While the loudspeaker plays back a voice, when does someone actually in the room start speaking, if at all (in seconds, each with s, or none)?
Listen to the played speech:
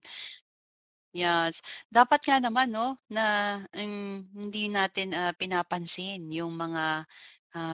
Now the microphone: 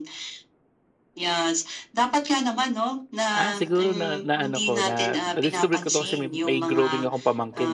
3.4 s